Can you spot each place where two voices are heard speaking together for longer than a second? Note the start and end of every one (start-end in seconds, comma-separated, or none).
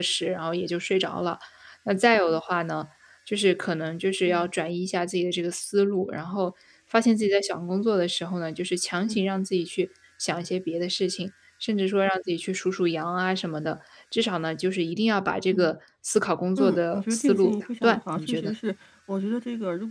16.6-18.5